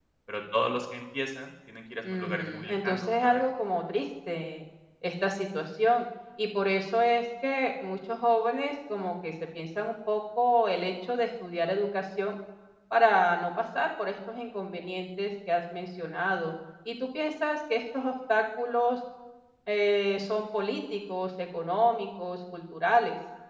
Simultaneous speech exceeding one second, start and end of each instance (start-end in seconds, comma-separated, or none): 2.1-3.4